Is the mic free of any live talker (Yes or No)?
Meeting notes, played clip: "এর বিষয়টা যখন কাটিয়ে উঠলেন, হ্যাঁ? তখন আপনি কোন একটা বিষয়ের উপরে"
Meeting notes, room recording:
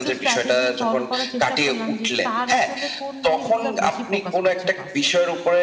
No